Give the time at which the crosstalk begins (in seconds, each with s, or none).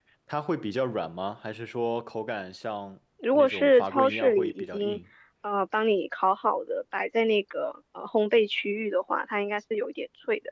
3.2 s